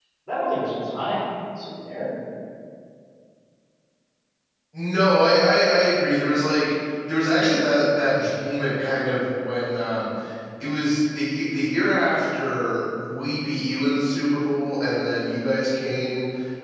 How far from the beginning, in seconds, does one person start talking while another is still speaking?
none

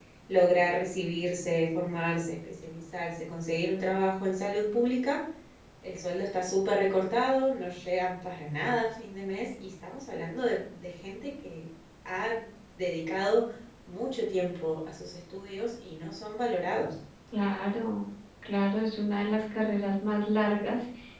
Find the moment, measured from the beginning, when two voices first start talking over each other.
none

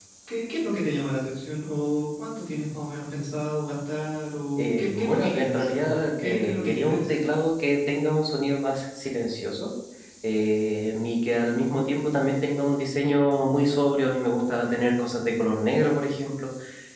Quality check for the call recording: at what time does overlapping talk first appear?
5 s

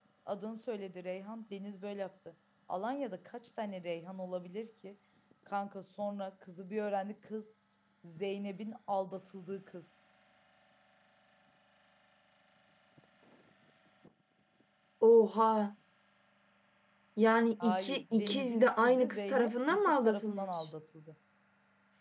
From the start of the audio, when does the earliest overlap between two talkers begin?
18 s

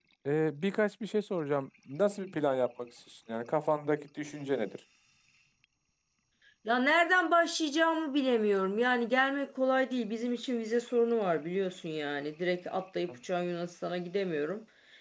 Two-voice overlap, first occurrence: none

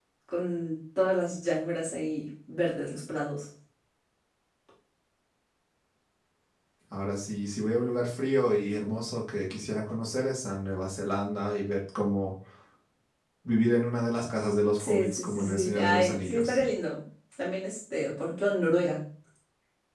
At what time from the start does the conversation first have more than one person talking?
15 s

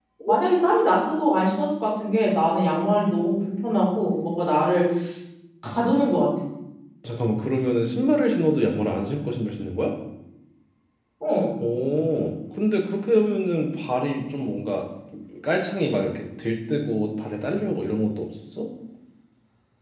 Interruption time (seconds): none

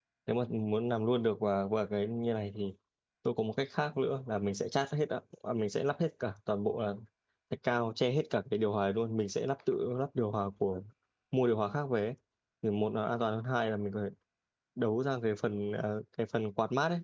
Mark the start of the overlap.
none

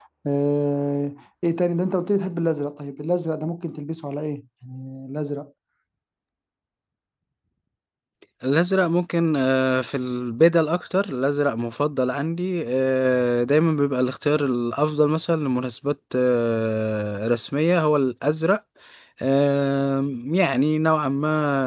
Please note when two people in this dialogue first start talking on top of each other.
none

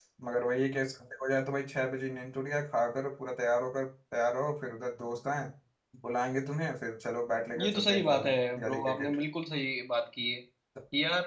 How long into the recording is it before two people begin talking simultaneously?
8 s

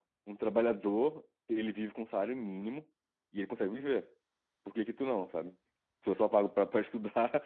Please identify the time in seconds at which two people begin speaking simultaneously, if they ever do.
none

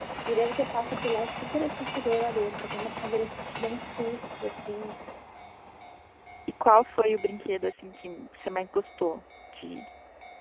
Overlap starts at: none

